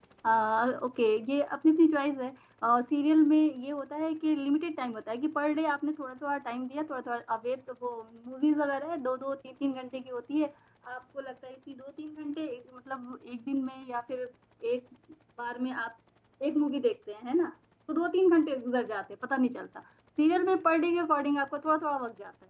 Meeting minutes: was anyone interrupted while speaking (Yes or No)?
No